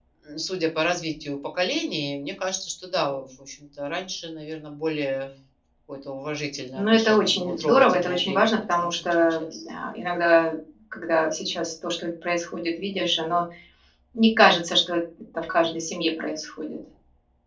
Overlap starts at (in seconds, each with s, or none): 6.8 s